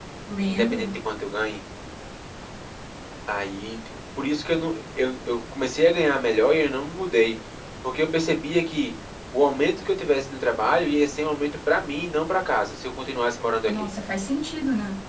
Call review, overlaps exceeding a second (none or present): none